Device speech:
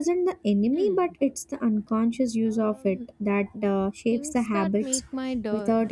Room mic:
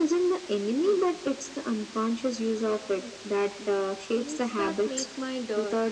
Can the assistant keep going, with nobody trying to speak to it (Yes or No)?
Yes